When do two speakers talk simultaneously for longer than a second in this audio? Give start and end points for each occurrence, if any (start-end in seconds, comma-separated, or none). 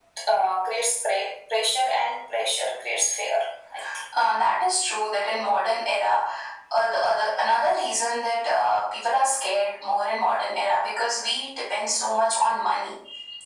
none